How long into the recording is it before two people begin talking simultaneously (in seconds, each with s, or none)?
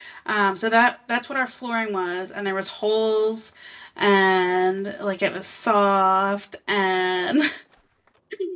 none